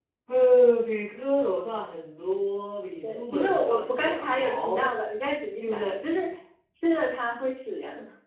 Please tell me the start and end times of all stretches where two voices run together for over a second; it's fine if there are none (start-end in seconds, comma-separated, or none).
3.0-4.9